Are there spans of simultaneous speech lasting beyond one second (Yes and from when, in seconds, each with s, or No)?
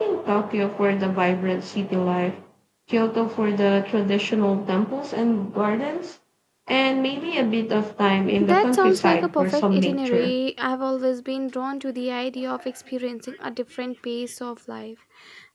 Yes, from 8.4 s